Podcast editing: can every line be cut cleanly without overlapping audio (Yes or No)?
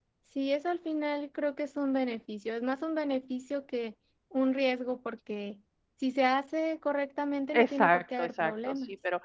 No